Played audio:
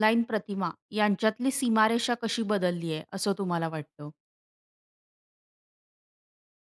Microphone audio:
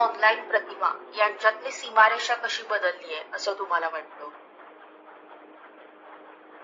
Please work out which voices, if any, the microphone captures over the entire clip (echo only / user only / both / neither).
echo only